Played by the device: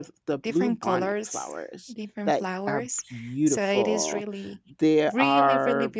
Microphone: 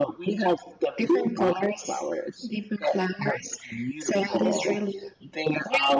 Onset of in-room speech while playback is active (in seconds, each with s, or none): none